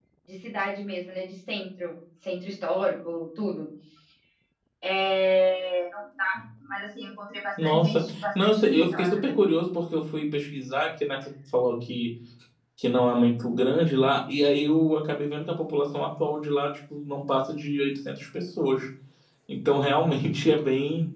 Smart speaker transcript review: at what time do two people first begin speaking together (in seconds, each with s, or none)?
7.6 s